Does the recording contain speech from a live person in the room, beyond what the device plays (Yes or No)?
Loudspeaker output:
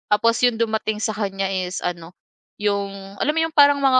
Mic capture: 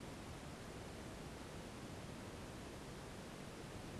No